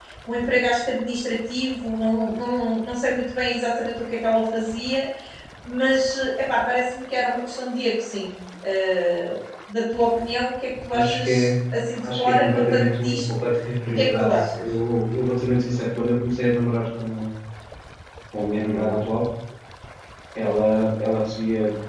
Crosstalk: present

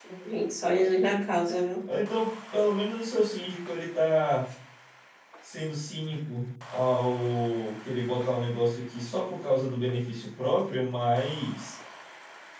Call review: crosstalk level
none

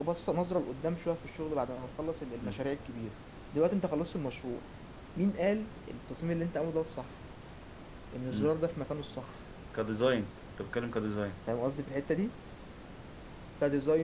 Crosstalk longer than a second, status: none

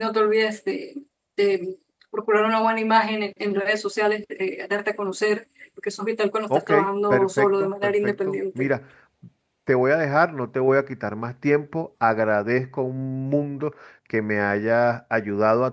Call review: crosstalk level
present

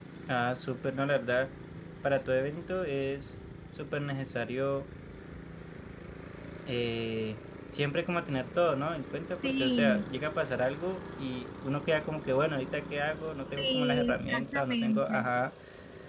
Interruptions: present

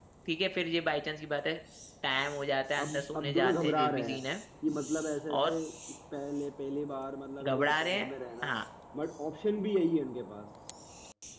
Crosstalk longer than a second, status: present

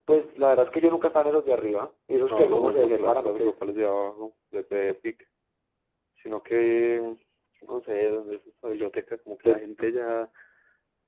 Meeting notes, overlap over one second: present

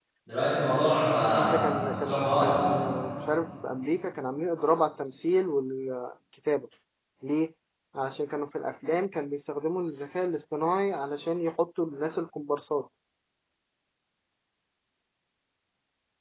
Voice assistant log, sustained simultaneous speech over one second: present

